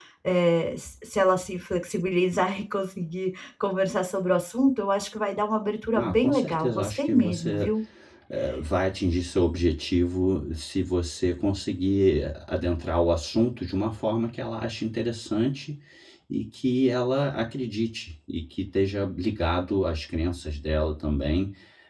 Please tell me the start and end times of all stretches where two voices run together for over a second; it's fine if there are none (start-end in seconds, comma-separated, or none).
5.9-7.7